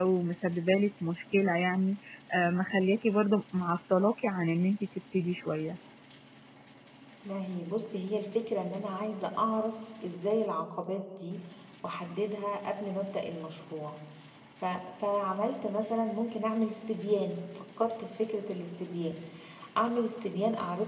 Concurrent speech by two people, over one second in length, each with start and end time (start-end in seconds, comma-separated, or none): none